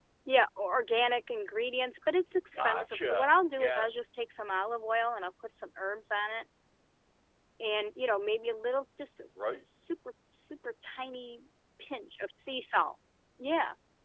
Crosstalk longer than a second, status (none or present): present